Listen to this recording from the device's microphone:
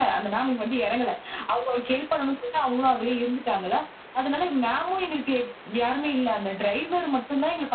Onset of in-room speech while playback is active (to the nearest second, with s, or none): none